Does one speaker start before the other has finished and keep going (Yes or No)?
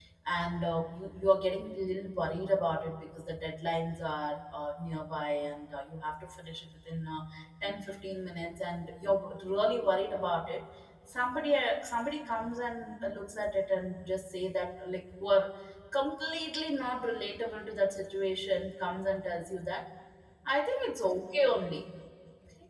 No